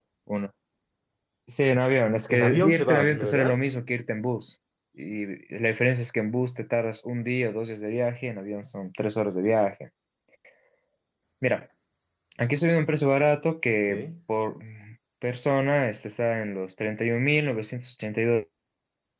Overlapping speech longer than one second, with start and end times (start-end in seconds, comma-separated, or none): 2.3-3.6